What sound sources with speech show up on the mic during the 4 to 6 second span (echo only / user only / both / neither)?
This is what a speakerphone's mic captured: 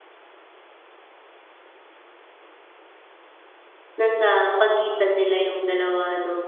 user only